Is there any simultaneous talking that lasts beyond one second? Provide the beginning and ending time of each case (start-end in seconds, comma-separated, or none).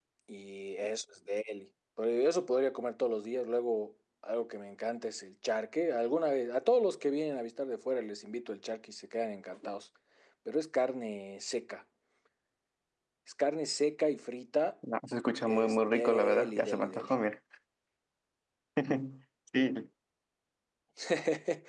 15.5-17.1